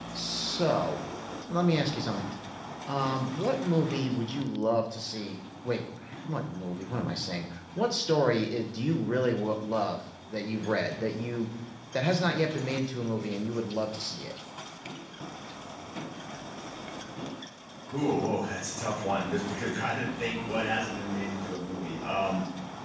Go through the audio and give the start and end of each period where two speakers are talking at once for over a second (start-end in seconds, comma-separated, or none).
none